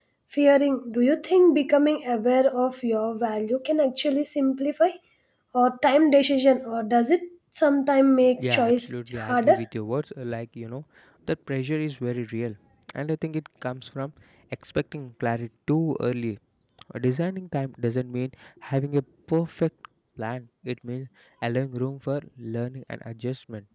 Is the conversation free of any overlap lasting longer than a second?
No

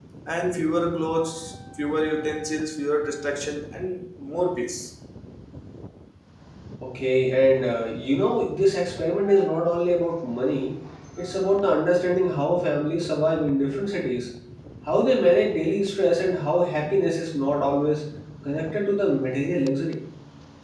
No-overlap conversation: Yes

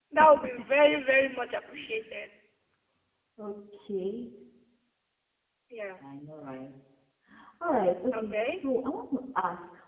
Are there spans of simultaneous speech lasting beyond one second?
No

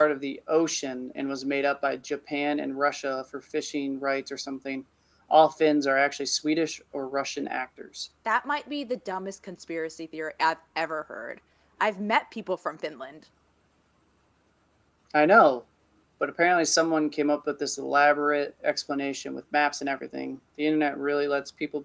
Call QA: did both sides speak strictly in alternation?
Yes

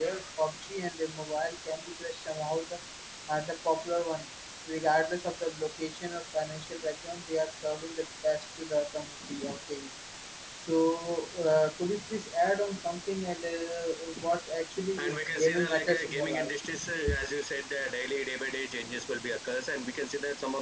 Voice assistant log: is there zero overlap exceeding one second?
No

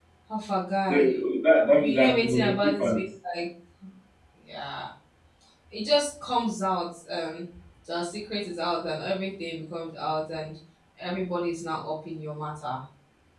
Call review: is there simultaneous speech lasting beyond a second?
Yes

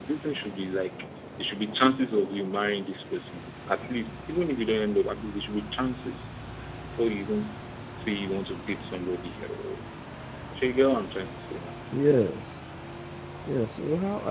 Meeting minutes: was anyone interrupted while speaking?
No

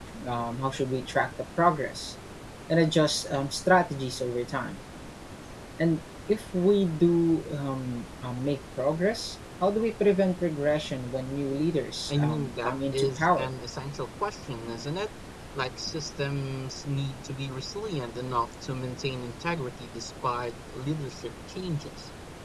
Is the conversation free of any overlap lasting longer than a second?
No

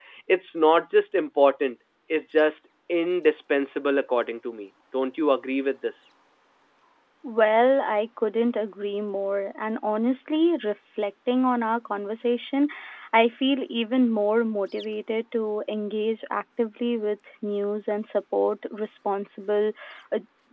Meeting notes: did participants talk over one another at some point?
No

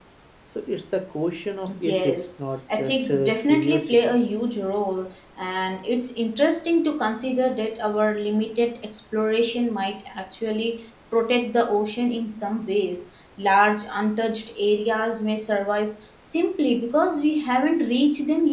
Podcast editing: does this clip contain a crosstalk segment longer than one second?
Yes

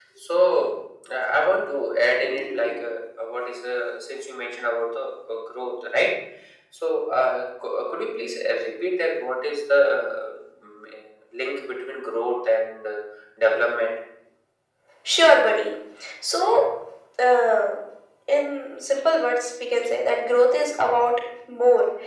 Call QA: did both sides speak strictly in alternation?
Yes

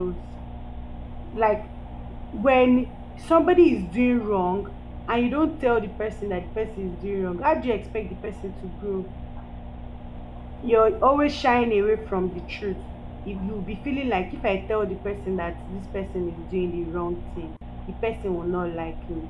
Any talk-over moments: No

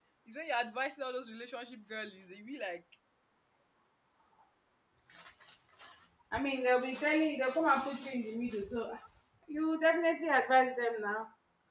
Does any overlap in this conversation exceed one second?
No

